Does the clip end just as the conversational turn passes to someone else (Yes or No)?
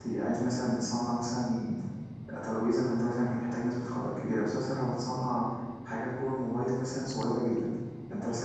No